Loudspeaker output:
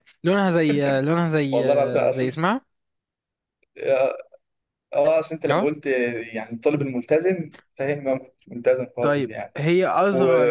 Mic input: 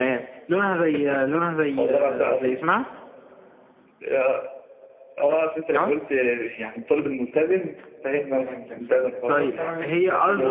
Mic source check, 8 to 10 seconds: both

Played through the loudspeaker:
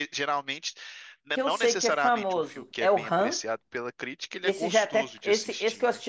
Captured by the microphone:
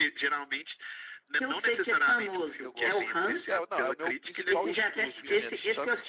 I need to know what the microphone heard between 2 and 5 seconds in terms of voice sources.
both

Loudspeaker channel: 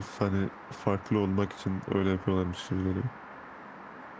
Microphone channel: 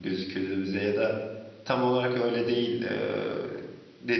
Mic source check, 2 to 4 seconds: user only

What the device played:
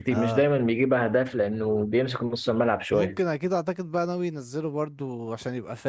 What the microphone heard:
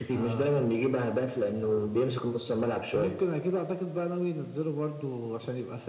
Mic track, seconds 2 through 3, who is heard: echo only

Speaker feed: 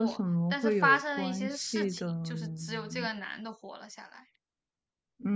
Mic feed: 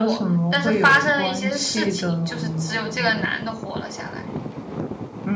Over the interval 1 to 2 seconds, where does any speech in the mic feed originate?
echo only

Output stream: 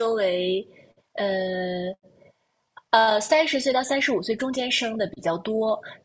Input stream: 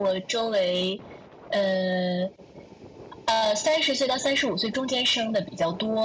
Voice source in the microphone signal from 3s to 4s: echo only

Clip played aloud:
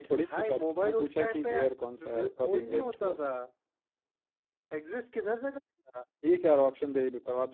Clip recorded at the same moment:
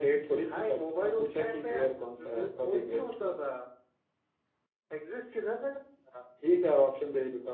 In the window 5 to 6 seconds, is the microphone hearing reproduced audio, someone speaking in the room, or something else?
echo only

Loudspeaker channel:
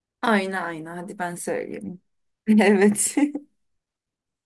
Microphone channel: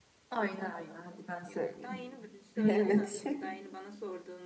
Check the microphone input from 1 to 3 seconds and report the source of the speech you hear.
both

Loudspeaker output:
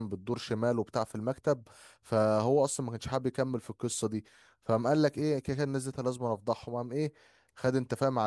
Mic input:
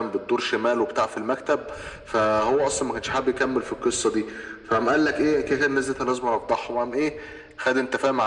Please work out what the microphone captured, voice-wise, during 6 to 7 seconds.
echo only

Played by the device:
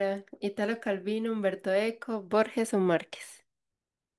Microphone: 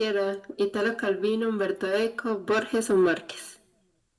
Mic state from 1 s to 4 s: echo only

